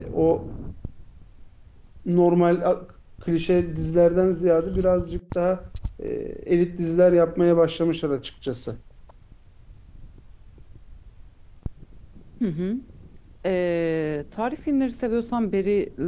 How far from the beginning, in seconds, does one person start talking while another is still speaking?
none

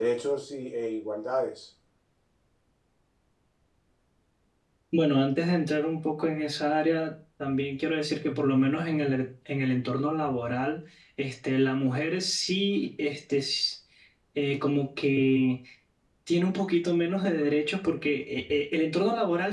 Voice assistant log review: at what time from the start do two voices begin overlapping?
none

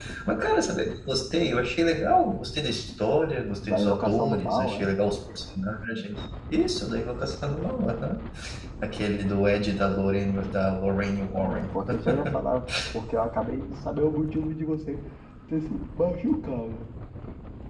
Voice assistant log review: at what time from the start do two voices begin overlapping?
4 s

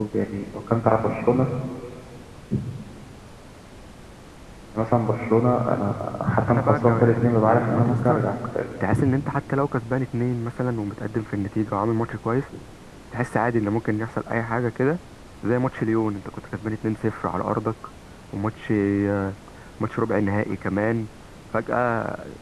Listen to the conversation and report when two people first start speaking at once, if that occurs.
6 s

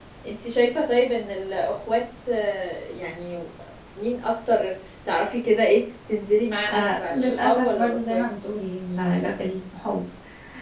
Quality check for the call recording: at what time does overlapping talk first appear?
7 s

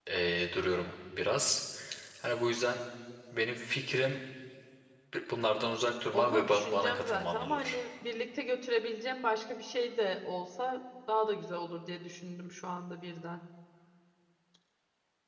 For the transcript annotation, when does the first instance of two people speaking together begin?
6 s

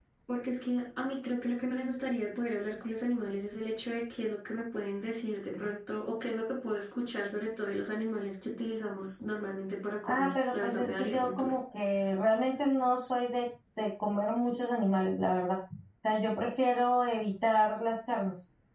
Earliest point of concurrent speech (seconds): 10 s

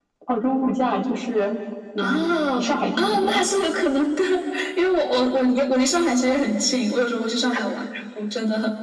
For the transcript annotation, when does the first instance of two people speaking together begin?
2 s

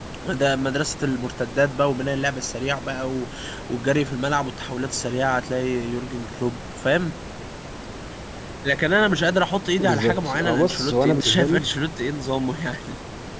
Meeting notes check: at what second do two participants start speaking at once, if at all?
10 s

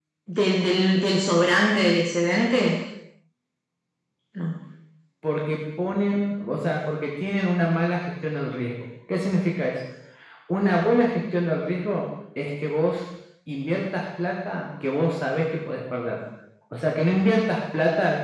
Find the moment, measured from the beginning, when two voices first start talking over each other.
none

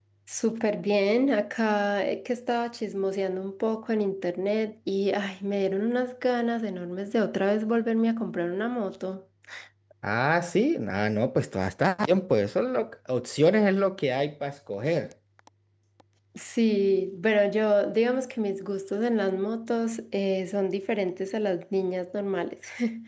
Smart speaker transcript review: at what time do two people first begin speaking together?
none

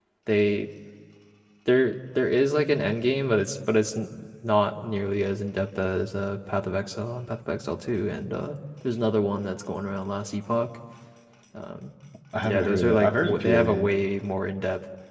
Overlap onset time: 12 s

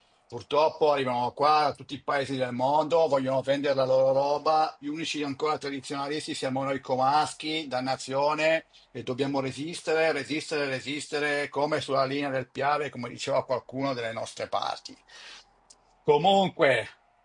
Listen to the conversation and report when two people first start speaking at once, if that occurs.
none

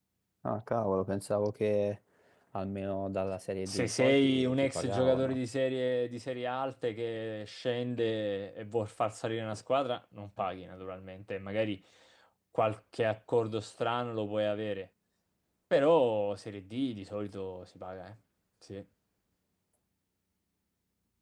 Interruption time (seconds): 4 s

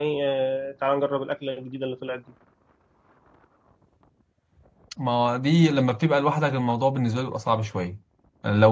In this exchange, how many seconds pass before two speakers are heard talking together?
none

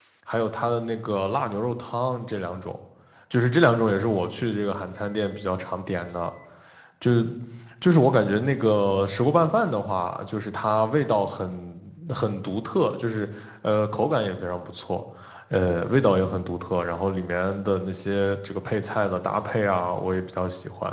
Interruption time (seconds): none

